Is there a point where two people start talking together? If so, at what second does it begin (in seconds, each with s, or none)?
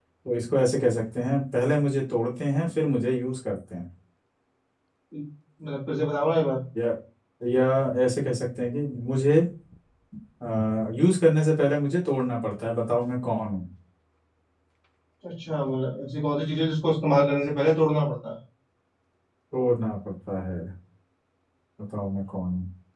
none